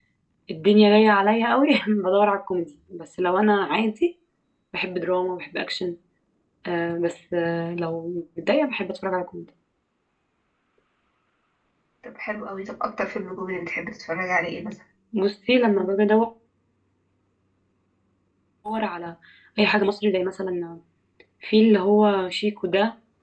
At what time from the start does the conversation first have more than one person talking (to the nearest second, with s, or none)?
none